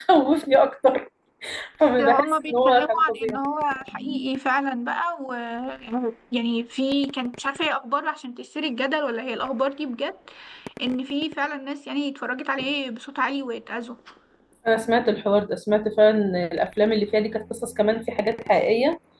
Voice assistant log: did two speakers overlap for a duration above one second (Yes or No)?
Yes